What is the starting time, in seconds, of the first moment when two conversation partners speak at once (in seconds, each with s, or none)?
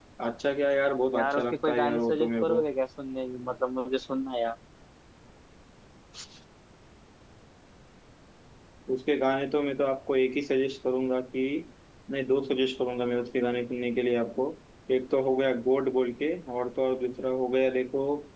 1.1 s